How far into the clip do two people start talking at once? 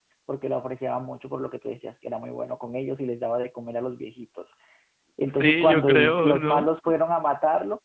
5.3 s

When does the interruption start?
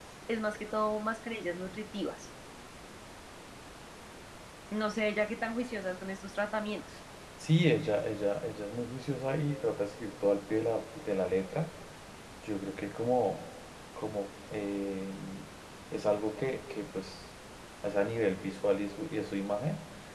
none

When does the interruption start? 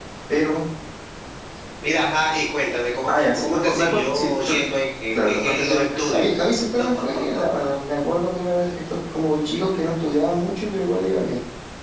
3.1 s

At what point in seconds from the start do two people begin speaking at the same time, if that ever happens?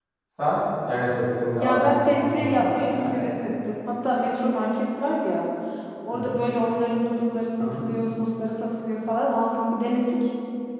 1.6 s

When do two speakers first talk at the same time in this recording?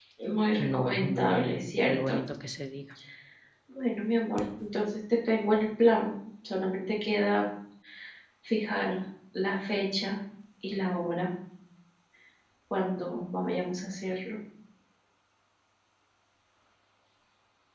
0.6 s

